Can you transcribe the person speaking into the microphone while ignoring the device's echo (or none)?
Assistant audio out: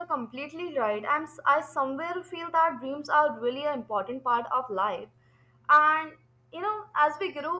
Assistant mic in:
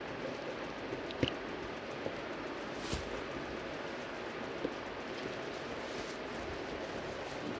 none